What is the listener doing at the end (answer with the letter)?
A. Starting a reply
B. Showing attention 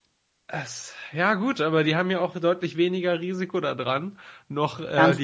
A